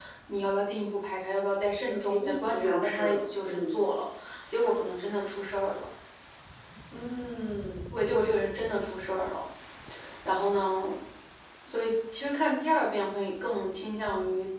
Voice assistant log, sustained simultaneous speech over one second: present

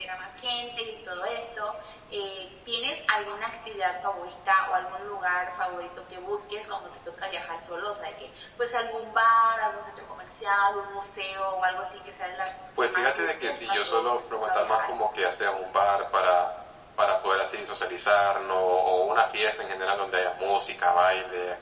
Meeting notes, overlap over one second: present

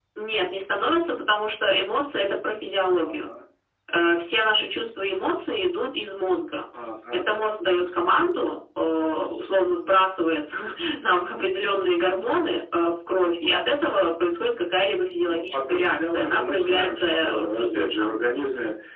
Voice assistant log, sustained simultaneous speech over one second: present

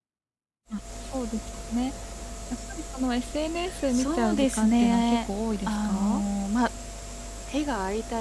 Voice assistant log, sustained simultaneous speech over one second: present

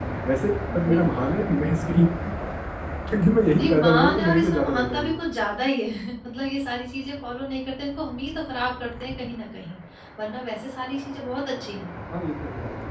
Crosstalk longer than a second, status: present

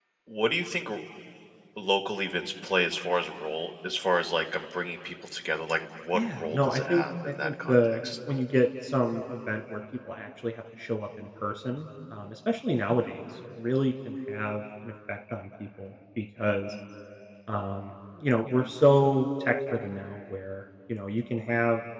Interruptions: present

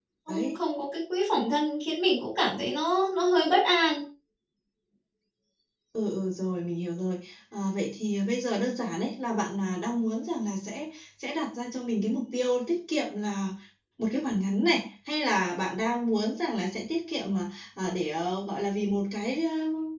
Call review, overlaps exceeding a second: none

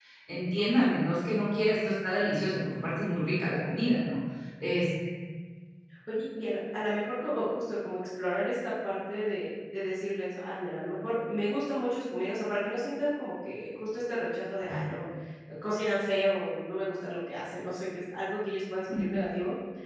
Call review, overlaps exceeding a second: none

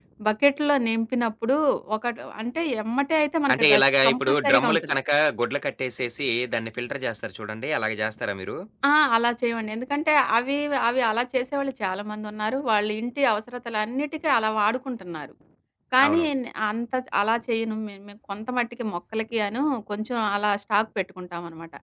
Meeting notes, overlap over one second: present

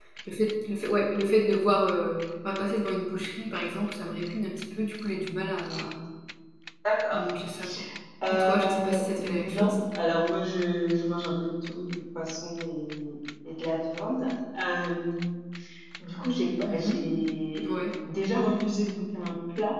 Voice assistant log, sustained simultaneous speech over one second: present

